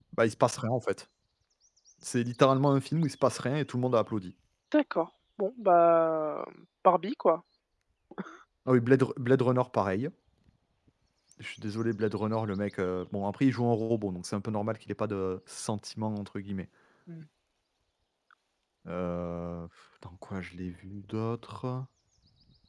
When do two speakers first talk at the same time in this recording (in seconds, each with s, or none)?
none